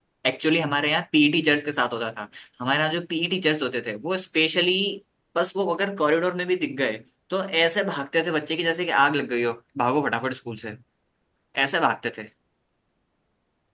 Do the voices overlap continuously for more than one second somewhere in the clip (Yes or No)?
No